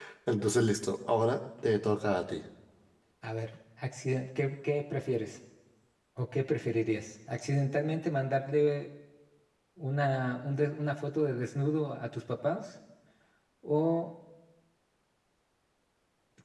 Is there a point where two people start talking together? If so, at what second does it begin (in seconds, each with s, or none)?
none